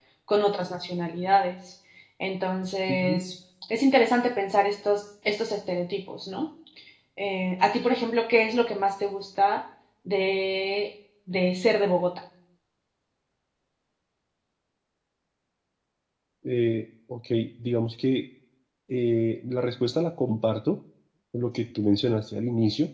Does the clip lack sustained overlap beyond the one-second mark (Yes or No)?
Yes